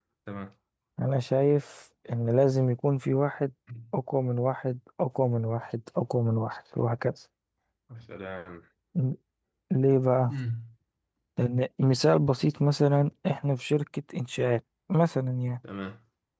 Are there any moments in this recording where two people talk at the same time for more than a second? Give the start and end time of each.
none

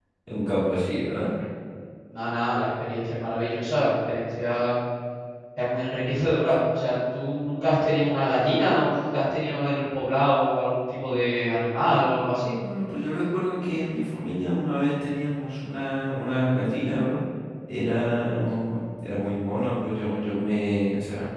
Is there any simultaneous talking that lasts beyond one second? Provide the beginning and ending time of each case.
none

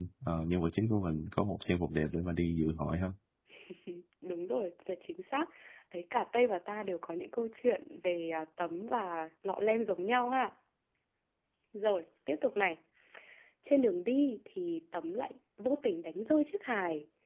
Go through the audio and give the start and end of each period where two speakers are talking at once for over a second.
none

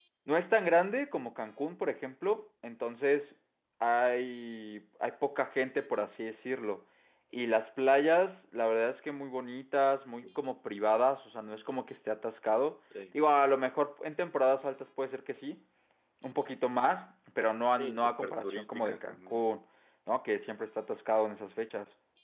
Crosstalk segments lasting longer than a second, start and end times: 17.8-19.4

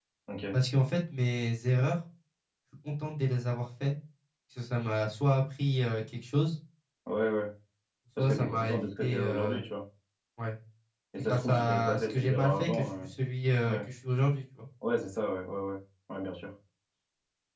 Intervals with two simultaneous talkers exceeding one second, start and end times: 8.2-9.6, 11.2-13.1

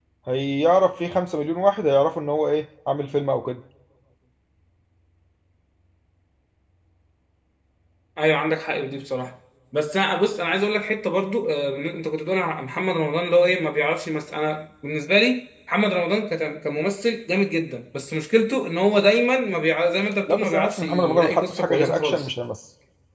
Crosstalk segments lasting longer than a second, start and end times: 20.3-22.3

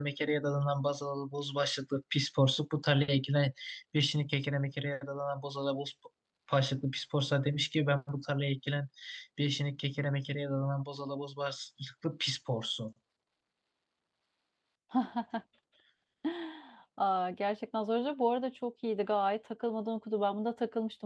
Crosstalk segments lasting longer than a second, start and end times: none

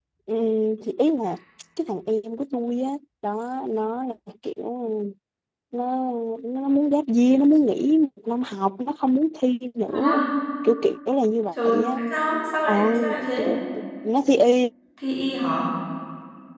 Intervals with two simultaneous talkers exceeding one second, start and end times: none

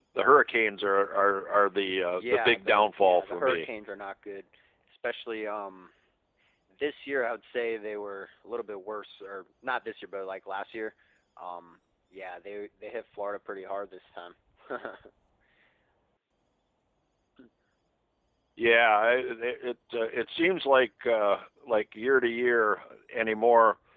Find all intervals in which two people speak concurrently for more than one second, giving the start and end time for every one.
2.1-3.7

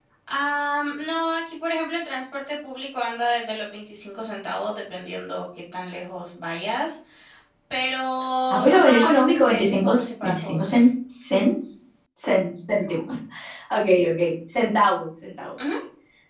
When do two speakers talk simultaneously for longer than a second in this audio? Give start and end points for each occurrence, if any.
8.7-10.8

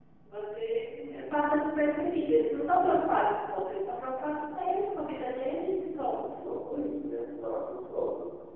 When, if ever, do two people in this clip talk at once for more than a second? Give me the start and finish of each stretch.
none

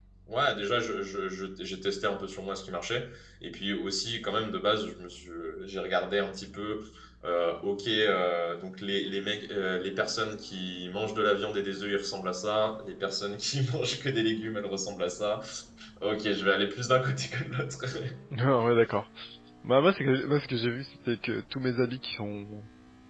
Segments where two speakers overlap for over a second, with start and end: none

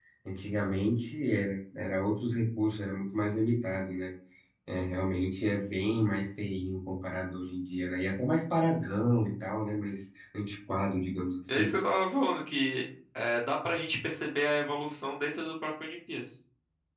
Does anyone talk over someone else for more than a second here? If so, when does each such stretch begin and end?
none

